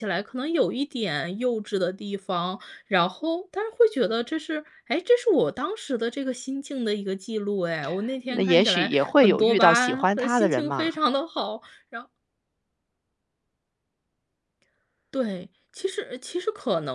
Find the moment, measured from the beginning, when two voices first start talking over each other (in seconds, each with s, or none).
8.3 s